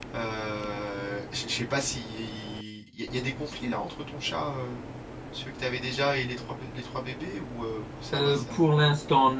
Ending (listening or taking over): taking over